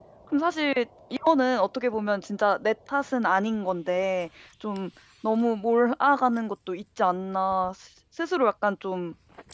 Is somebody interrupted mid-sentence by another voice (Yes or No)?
No